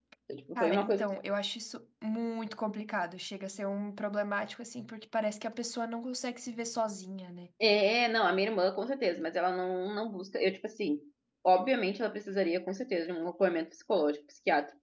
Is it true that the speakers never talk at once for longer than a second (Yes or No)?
Yes